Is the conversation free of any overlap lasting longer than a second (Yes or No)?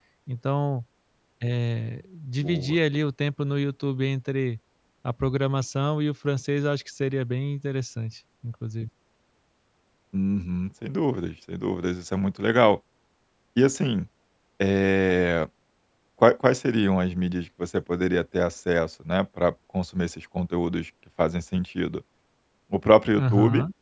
Yes